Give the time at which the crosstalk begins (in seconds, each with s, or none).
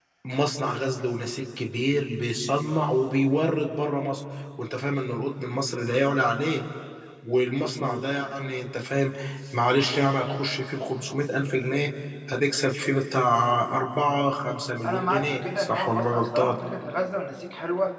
14.8 s